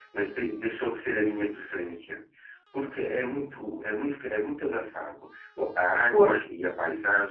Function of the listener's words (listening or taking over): listening